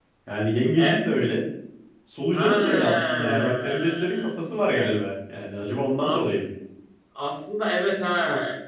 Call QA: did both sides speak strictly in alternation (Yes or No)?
No